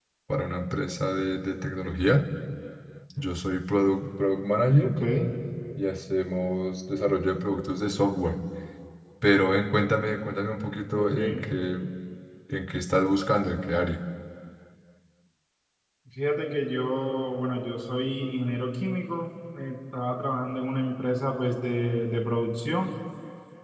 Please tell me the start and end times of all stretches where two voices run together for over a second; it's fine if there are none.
none

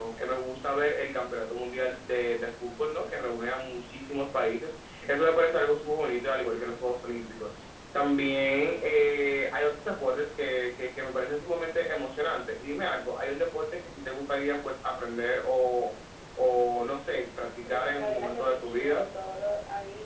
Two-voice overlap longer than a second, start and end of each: 17.6-19.1

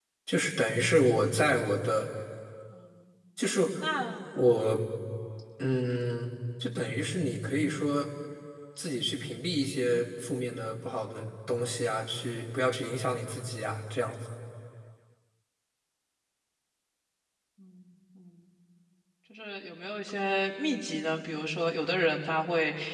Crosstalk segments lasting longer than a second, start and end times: none

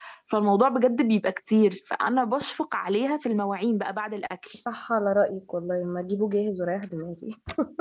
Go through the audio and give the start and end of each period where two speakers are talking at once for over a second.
none

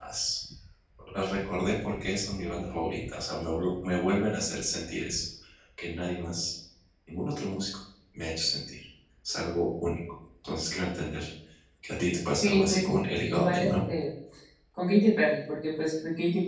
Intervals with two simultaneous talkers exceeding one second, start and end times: 12.4-13.7

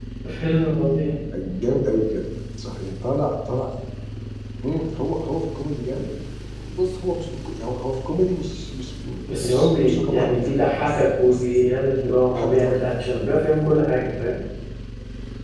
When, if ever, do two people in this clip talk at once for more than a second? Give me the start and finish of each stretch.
9.3-11.6

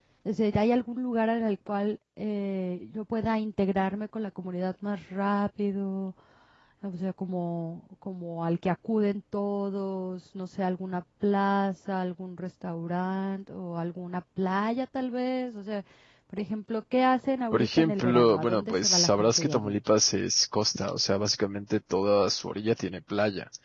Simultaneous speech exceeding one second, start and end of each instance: 17.5-19.8

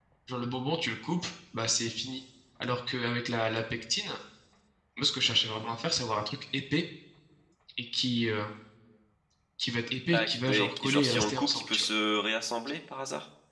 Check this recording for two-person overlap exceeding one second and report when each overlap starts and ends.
10.1-11.8

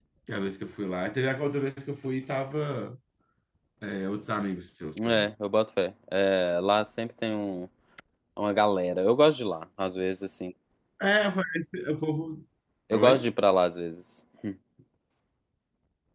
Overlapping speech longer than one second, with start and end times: none

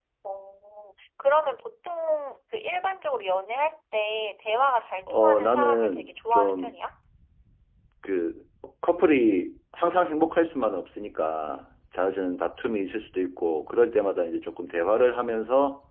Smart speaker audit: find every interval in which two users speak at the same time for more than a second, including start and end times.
5.1-6.7

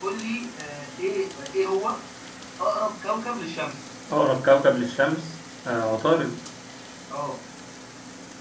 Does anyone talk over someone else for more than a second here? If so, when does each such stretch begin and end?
none

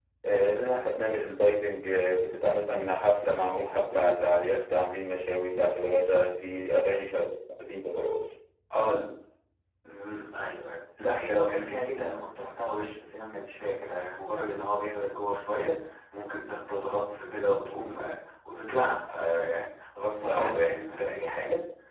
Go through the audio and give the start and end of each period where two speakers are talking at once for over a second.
none

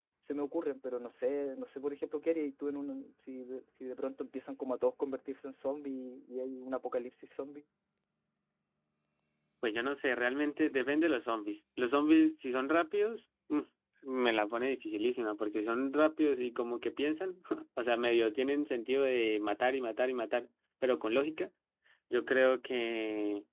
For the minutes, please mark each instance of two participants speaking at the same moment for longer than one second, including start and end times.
none

